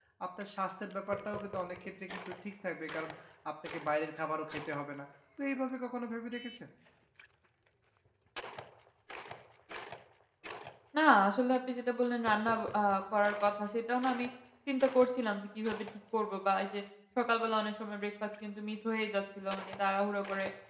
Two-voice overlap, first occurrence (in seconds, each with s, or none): none